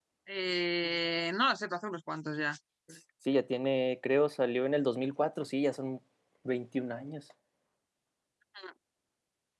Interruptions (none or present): none